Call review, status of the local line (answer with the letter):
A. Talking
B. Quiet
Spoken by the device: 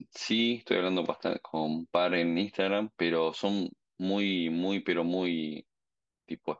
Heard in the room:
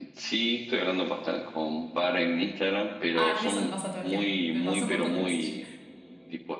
A